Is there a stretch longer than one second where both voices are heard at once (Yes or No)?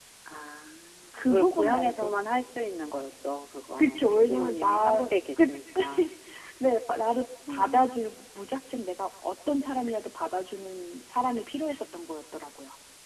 Yes